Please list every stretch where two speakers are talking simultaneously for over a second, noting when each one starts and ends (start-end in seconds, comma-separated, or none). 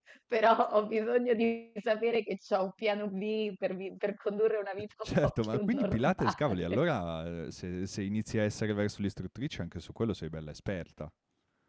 5.0-6.8